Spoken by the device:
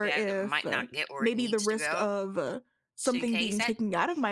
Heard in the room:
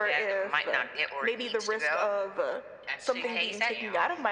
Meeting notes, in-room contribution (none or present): present